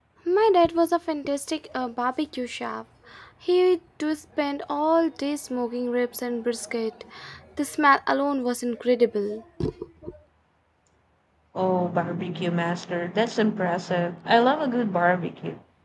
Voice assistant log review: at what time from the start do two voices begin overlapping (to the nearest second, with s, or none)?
none